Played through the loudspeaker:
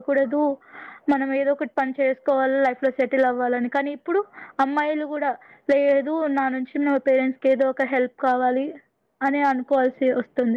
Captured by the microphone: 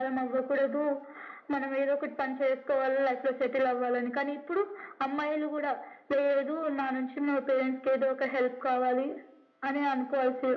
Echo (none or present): present